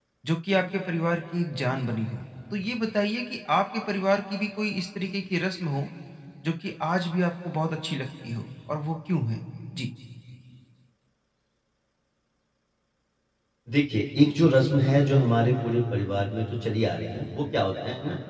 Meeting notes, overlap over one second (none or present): none